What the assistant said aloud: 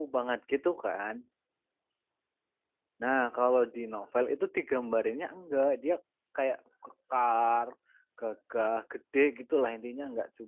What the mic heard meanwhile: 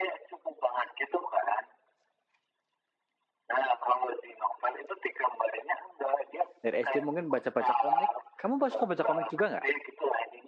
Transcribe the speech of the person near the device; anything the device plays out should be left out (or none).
dari SD mungkin baca-baca komik. Kamu suka baca komik juga nggak?